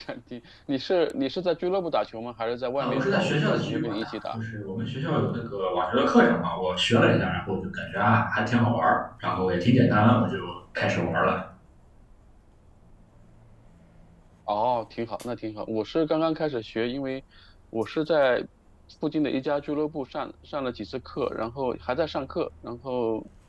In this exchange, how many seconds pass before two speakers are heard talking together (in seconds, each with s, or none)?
2.8 s